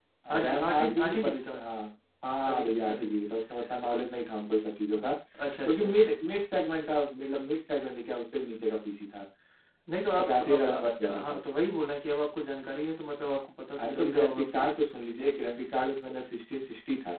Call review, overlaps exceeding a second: present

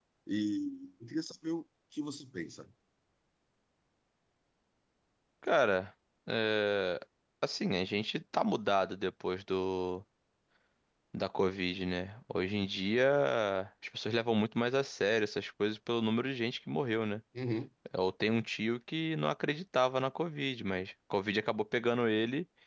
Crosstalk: none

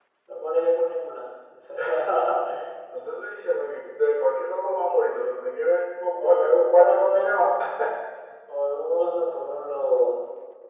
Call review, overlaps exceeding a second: present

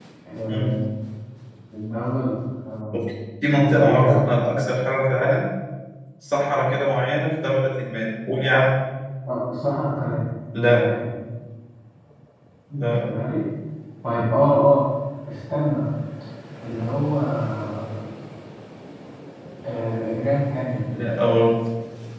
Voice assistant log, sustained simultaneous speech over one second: none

